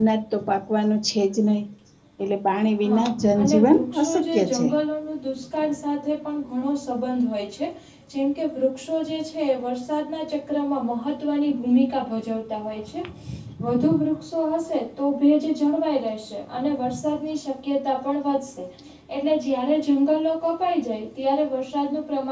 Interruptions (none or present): present